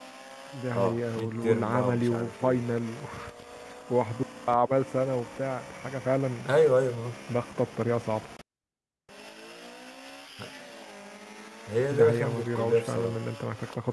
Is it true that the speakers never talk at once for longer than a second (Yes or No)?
No